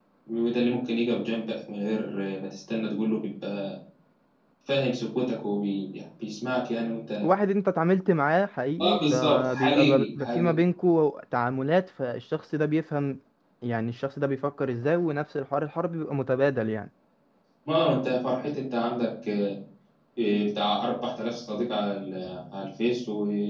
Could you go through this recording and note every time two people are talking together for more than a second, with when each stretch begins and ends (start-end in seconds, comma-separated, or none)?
8.8-10.6